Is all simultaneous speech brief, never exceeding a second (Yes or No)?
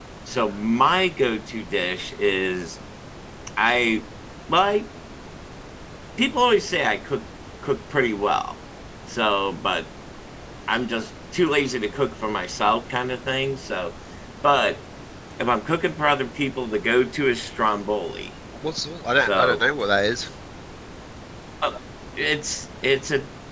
Yes